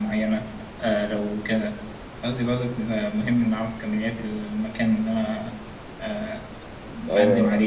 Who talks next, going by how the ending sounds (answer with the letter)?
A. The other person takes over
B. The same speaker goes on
A